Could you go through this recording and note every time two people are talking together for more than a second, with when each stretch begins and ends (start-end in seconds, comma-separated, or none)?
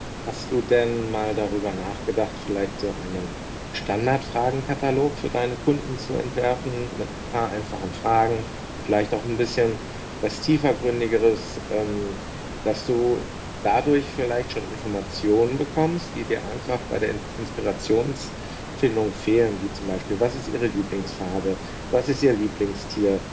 none